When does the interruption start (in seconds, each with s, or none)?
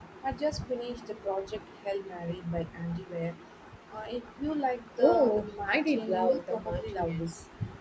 5.0 s